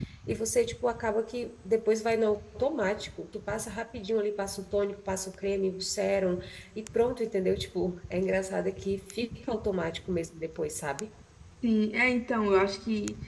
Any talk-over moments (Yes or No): No